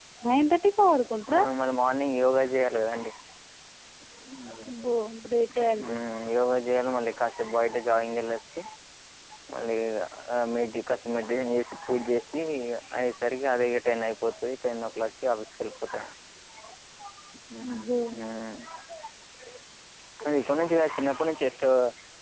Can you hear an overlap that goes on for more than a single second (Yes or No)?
No